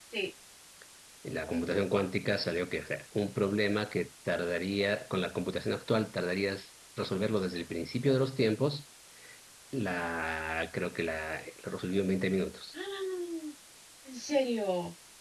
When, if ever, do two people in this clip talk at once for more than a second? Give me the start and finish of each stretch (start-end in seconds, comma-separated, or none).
none